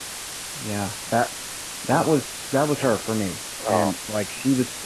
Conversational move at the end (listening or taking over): listening